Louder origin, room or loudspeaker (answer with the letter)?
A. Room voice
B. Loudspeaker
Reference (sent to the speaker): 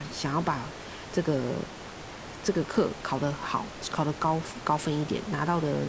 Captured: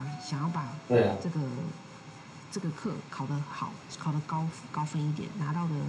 A